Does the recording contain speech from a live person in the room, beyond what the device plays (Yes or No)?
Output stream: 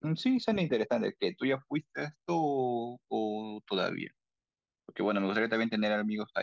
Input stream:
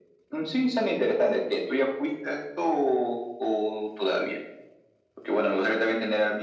No